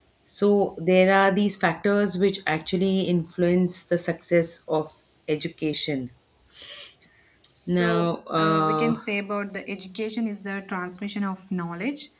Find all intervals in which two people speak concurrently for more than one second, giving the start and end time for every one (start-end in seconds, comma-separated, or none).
7.7-9.0